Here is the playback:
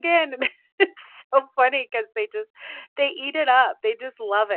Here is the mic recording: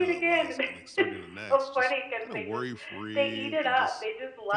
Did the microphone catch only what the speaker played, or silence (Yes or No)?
No